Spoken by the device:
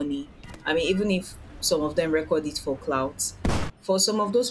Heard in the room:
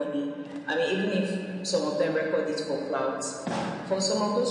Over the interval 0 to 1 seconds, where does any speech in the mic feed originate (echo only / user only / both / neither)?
echo only